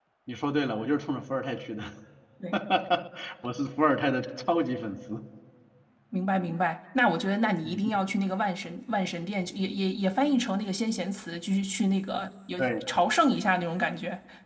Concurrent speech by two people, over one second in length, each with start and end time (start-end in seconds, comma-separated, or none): none